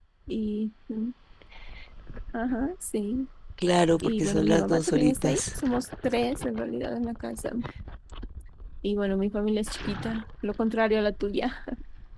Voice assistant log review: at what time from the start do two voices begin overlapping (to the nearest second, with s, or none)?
4 s